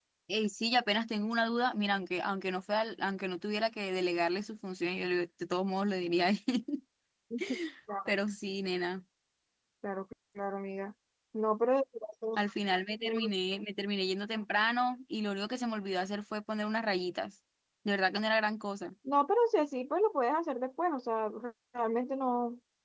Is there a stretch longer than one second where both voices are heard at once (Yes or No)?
No